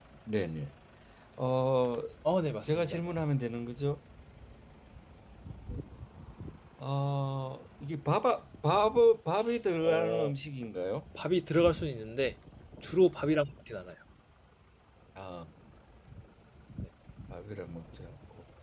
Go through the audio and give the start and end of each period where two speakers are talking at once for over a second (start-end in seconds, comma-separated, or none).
none